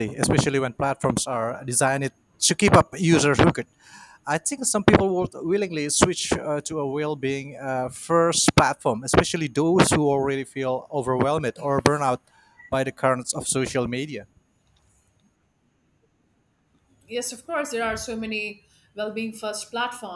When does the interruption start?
none

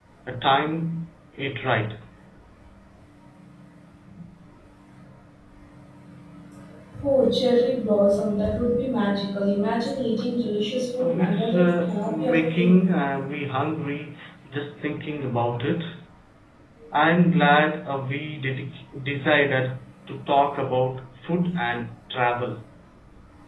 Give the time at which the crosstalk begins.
11.0 s

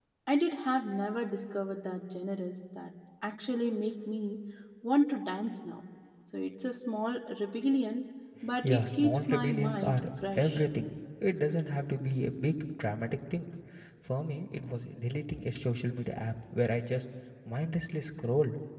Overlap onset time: 8.6 s

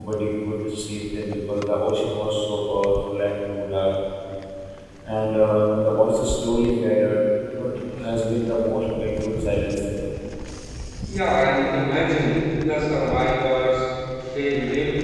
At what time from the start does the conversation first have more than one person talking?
none

